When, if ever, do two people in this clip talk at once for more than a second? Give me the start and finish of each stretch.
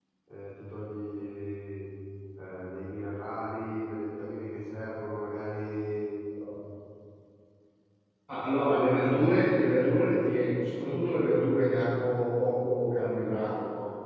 none

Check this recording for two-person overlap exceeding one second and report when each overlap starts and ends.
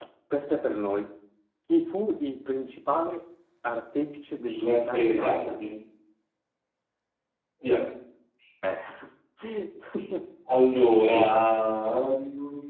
4.4-5.6

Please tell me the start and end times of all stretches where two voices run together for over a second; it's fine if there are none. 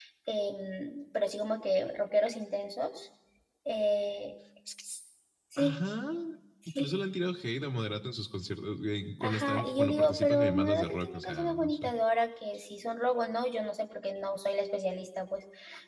9.2-11.8

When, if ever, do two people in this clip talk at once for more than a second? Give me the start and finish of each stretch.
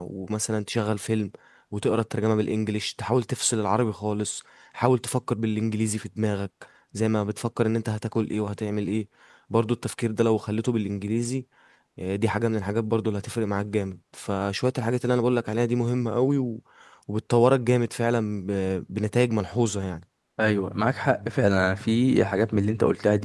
none

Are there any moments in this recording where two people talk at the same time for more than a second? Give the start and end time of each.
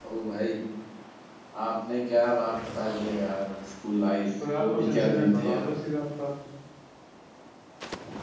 4.4-5.7

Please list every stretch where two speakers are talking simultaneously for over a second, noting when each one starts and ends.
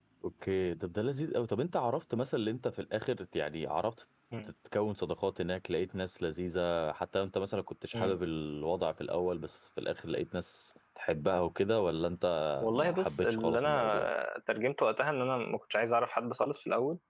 12.8-14.1

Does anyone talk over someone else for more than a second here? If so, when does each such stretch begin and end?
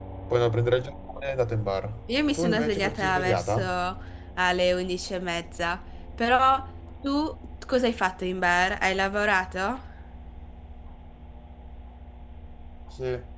2.4-3.6

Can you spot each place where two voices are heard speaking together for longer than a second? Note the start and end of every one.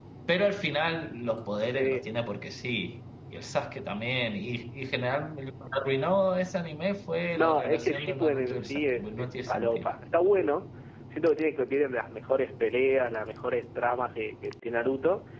7.3-9.9

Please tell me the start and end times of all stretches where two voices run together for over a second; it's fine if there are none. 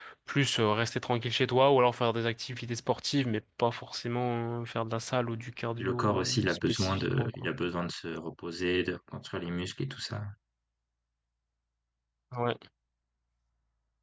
5.8-7.5

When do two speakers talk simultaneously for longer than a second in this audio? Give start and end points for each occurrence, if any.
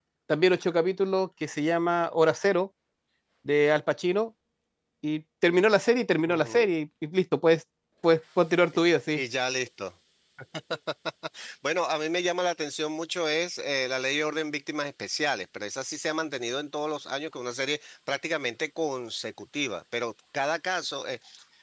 none

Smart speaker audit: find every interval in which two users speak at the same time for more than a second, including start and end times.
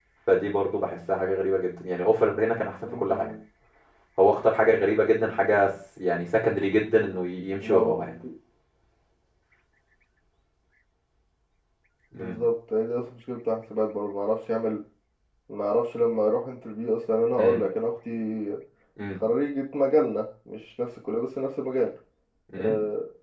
none

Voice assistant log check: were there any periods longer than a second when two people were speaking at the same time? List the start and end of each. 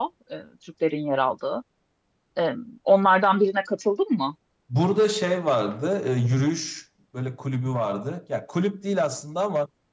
none

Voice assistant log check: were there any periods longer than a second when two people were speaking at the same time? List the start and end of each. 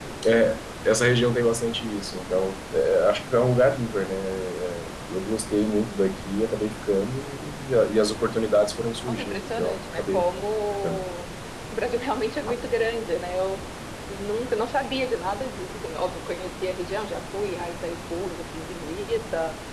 9.1-10.3

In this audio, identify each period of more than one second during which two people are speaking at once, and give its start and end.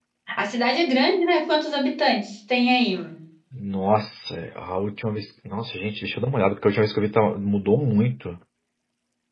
none

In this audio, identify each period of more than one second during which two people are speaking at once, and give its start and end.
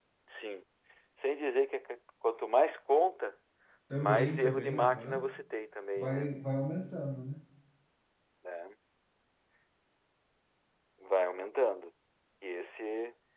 4.0-5.2

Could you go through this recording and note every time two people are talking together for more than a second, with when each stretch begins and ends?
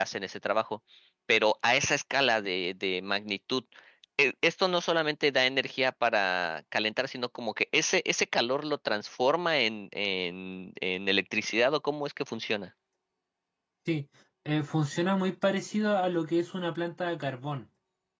none

